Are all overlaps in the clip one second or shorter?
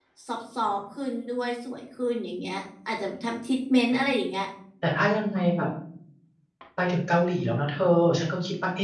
Yes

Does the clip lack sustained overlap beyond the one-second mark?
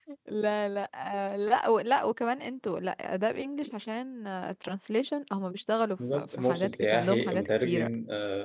No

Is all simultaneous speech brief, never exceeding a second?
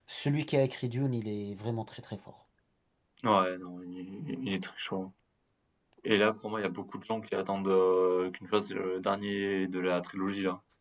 Yes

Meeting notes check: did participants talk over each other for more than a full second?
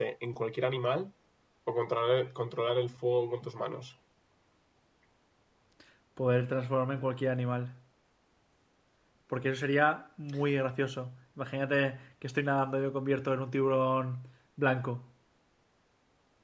No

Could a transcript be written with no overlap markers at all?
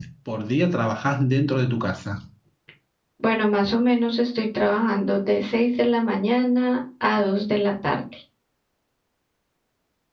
Yes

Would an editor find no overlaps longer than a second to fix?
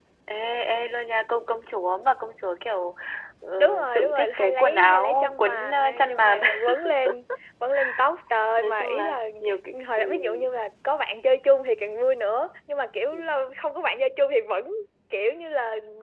No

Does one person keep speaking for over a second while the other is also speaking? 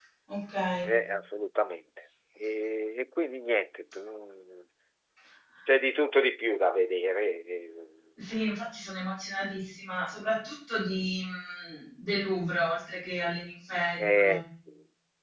No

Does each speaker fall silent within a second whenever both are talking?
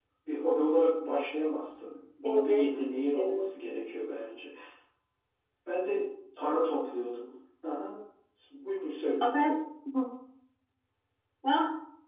Yes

